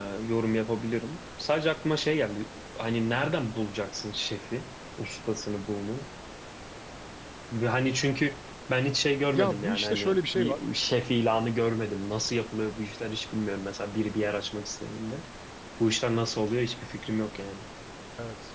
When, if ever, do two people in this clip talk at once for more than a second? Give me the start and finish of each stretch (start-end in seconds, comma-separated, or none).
9.3-10.6